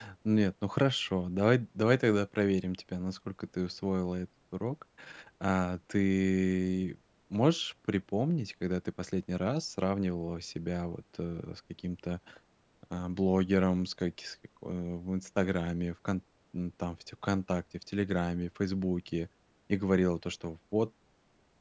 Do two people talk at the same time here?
No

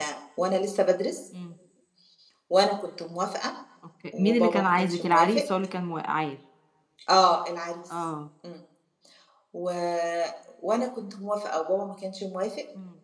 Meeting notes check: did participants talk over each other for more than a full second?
Yes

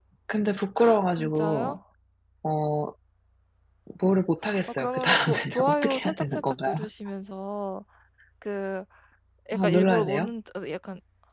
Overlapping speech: Yes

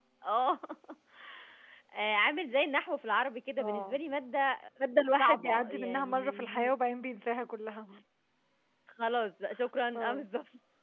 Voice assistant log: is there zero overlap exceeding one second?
No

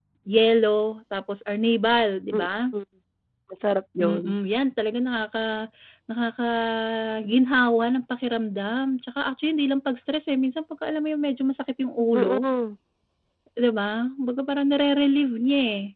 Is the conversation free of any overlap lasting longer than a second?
Yes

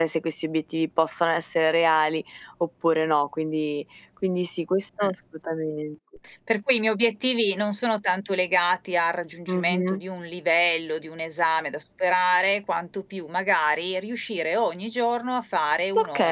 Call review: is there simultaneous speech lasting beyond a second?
No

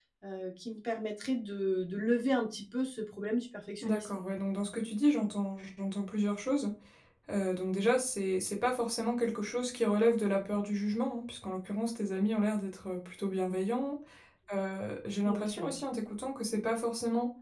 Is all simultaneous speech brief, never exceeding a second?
Yes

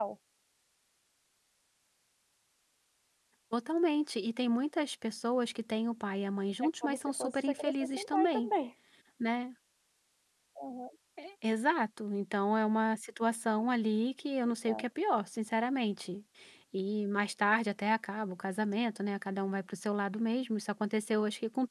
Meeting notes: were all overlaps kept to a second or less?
No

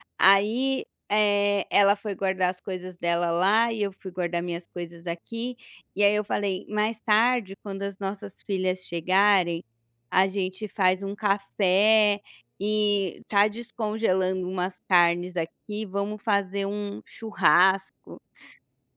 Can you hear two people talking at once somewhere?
No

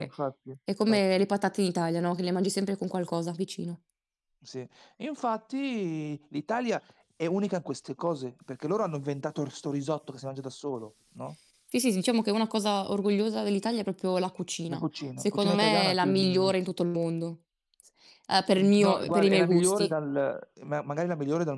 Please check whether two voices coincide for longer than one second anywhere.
Yes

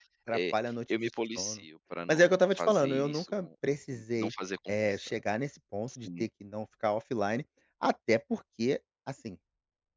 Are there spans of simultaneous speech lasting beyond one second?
Yes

